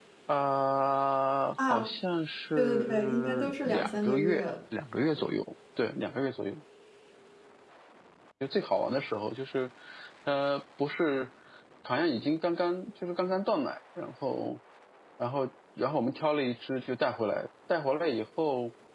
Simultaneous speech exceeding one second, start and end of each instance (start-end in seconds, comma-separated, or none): 2.6-4.5